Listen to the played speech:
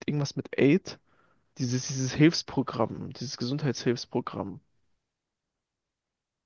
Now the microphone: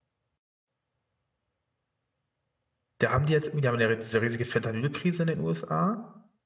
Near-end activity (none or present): present